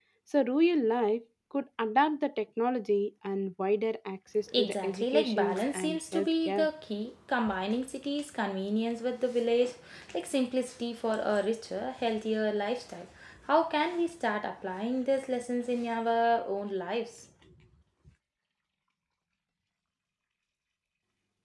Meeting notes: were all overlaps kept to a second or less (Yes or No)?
No